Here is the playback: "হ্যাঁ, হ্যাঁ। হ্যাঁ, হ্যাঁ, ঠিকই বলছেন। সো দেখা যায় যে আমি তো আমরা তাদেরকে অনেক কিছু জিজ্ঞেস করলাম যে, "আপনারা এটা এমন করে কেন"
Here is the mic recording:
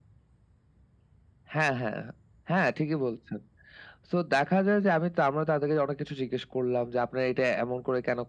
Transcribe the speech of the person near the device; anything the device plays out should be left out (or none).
none